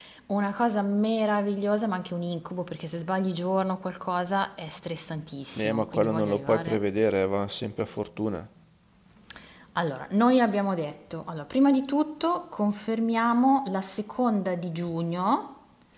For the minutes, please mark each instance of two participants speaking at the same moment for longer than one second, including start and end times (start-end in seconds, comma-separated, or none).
5.5-6.8